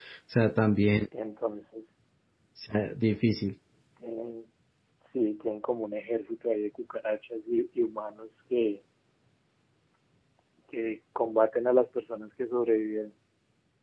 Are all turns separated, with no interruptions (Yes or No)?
Yes